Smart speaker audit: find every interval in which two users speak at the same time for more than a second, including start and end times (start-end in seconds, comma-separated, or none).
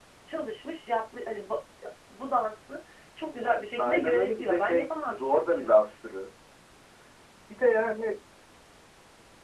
3.8-5.8